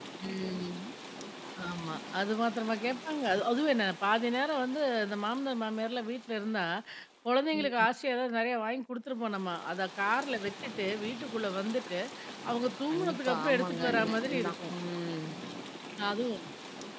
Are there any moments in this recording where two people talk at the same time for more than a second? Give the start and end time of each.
12.9-14.7

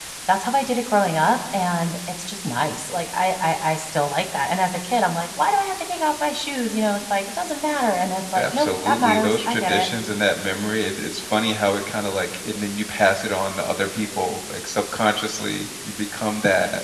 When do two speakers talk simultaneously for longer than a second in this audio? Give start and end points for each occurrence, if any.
8.4-9.9

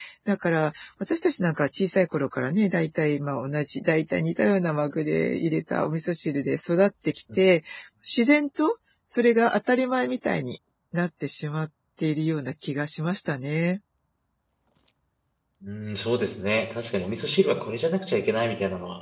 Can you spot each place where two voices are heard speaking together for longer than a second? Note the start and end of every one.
none

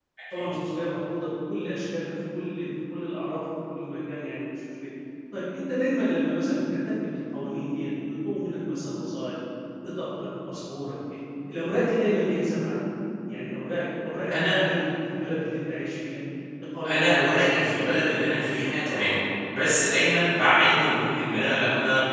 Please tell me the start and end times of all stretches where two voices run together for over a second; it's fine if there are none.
16.9-19.0

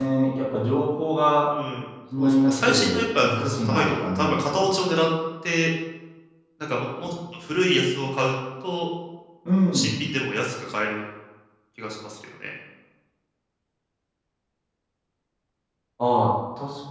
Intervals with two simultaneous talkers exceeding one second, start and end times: 2.2-4.6

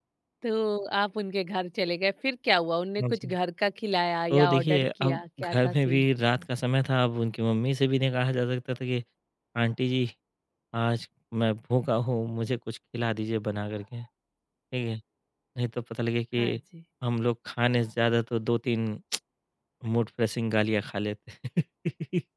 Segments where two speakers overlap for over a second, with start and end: 4.3-6.1

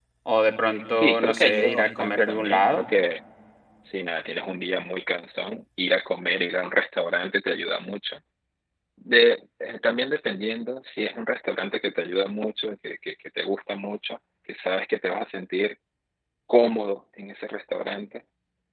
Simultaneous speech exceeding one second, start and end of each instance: 1.0-2.9

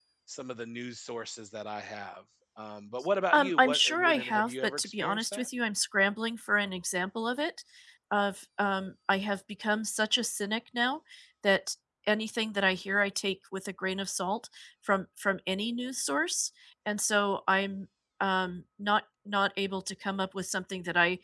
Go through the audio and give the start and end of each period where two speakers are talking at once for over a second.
3.3-5.5

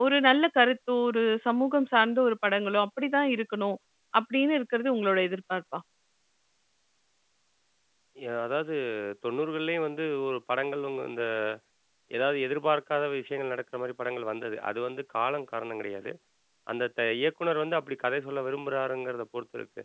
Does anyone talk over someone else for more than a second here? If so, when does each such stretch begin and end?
none

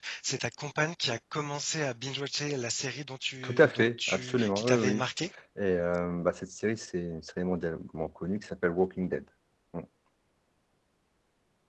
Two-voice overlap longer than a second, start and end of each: 3.4-5.0

